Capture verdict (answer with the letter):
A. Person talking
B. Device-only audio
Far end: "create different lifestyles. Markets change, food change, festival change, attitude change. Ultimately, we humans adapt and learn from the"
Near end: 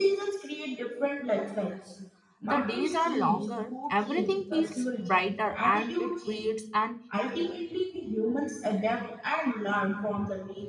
A